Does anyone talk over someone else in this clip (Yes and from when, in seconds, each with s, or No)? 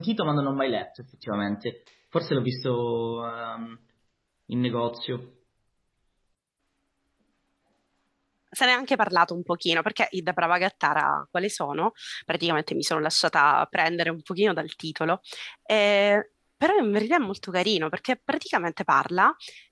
No